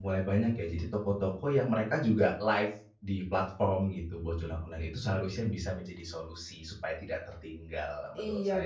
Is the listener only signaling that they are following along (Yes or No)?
No